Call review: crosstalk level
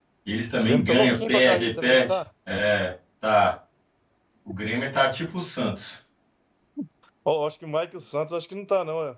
present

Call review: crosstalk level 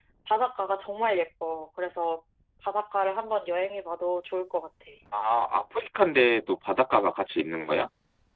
none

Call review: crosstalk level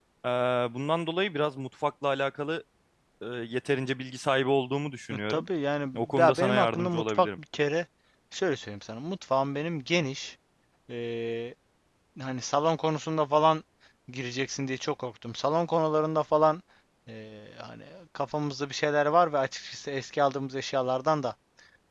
present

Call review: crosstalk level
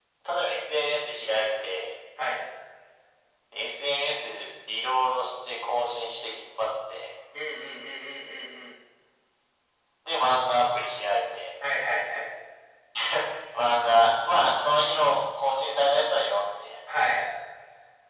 none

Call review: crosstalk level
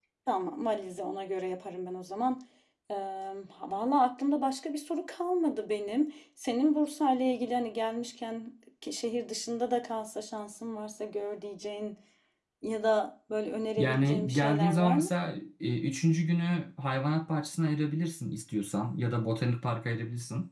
present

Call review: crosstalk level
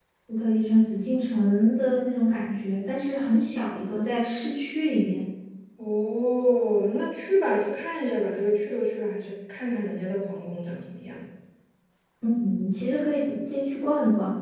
none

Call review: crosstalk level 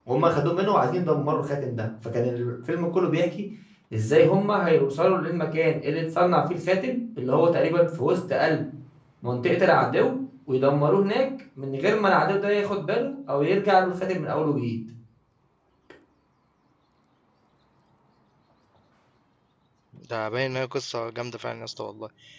none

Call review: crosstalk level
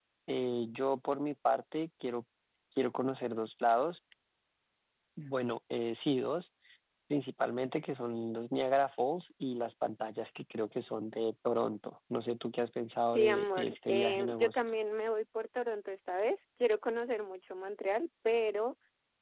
present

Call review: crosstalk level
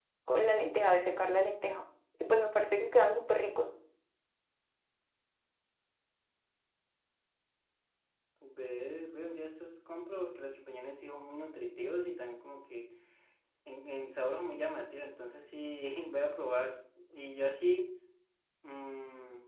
none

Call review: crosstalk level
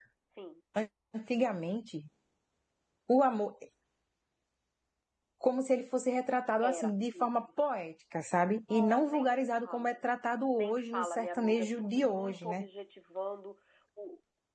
present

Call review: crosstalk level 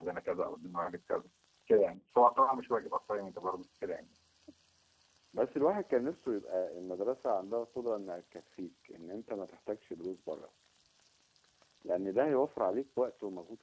none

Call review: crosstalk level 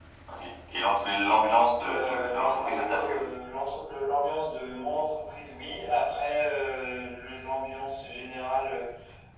present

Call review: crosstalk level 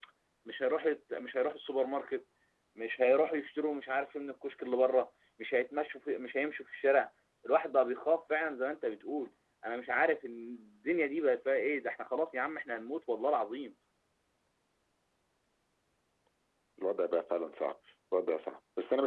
none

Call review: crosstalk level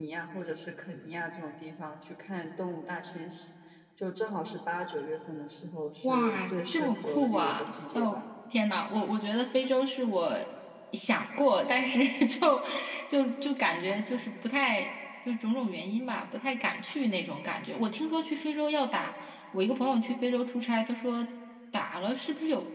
present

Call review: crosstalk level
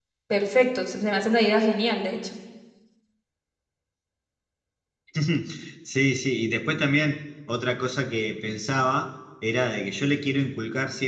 none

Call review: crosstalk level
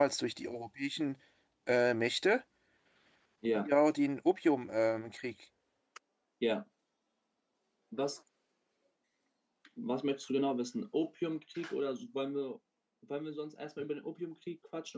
none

